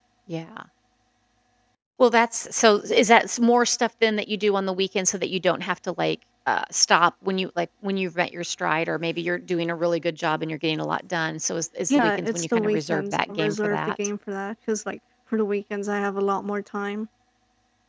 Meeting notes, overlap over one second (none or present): present